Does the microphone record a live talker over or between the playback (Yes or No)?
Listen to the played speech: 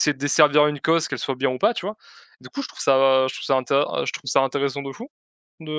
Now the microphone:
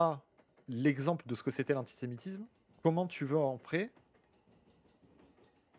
Yes